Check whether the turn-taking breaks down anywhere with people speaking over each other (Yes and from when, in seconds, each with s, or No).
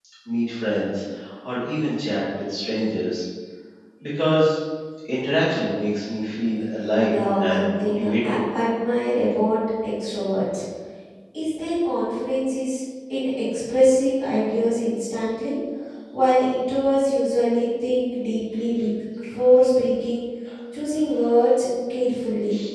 Yes, from 7.1 s